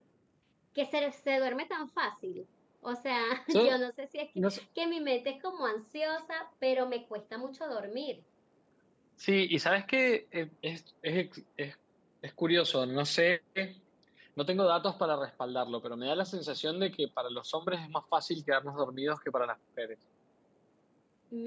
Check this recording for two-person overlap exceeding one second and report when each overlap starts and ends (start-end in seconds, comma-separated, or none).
none